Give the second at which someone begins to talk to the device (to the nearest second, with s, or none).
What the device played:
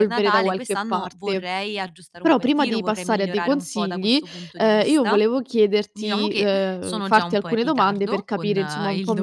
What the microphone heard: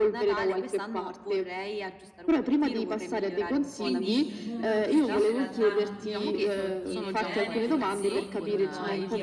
4 s